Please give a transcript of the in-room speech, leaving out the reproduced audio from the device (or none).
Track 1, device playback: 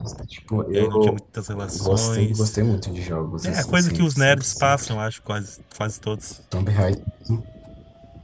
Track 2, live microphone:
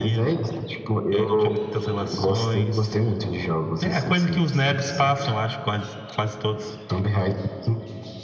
none